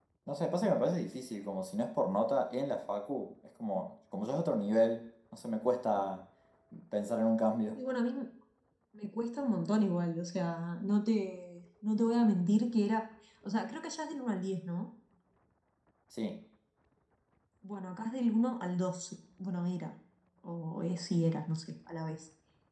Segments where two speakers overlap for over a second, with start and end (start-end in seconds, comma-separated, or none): none